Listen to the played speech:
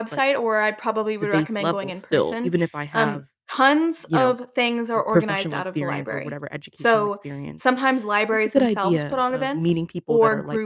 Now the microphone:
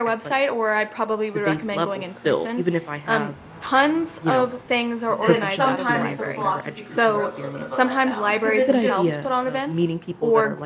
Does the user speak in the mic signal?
Yes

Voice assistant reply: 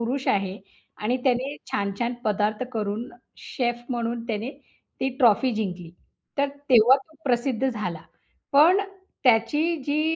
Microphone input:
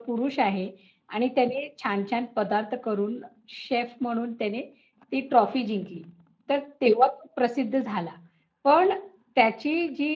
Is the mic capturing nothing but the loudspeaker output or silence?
Yes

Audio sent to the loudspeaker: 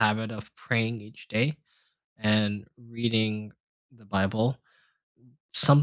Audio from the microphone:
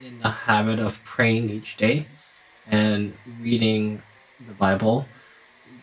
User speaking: No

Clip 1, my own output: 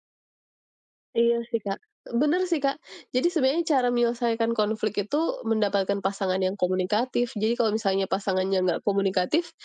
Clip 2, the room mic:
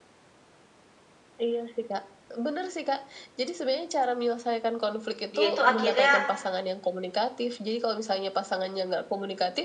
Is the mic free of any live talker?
No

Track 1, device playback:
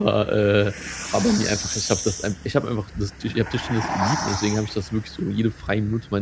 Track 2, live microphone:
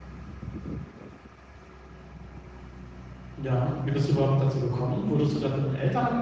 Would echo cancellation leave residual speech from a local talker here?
Yes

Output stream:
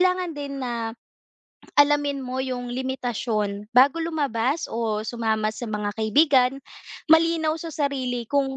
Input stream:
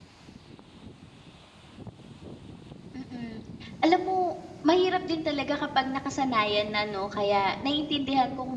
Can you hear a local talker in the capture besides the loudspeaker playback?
Yes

